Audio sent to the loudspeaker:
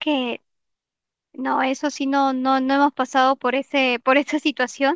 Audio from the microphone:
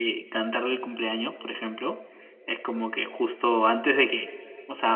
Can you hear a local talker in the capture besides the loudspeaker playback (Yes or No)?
Yes